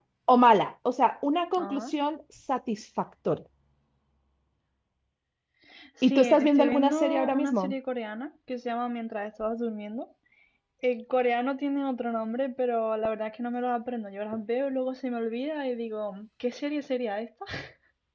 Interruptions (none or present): present